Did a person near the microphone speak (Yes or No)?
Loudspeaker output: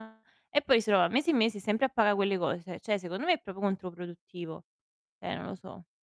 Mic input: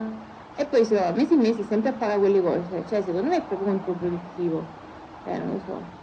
No